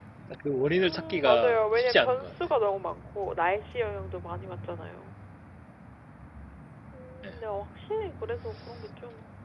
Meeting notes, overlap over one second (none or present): present